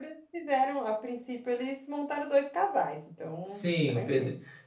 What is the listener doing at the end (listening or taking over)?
taking over